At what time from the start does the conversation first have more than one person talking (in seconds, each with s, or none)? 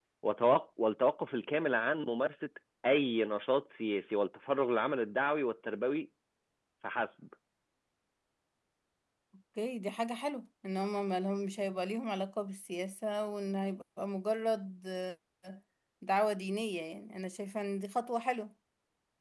none